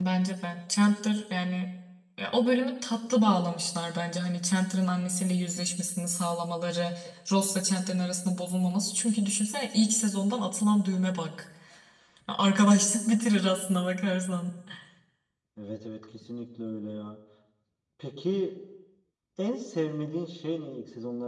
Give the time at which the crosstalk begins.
none

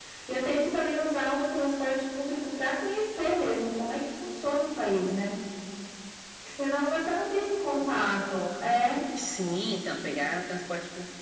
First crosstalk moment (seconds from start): none

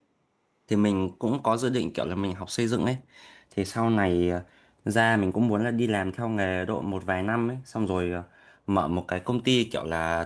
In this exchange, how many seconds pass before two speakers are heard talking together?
none

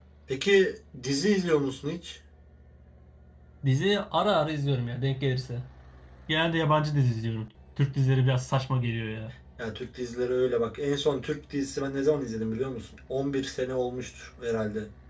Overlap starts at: none

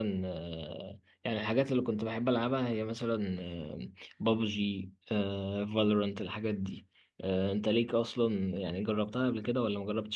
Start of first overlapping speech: none

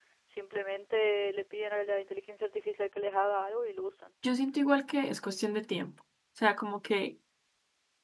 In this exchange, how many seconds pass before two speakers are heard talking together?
none

